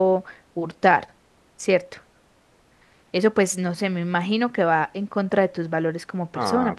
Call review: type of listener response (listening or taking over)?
taking over